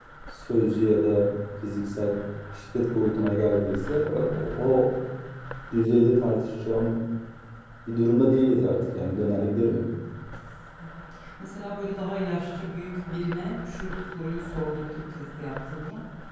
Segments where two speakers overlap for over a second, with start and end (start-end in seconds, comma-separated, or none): none